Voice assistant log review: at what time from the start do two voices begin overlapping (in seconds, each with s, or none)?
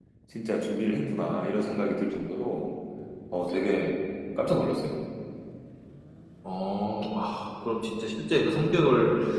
none